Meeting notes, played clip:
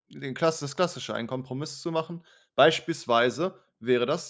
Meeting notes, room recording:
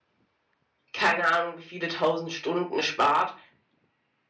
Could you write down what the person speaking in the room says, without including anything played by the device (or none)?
keine Ahnung, wie viele Tausend Stunden spart,